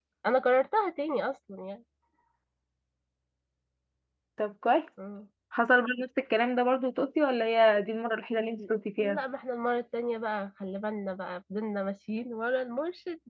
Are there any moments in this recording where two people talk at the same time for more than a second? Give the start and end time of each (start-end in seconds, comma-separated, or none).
none